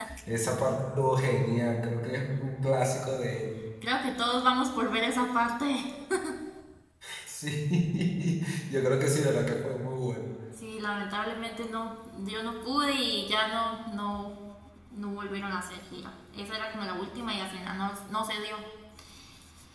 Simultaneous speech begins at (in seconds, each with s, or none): none